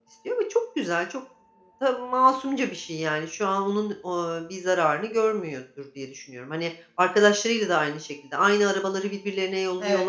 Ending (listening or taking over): taking over